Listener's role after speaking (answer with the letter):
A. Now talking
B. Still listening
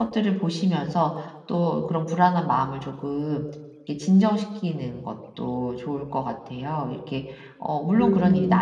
B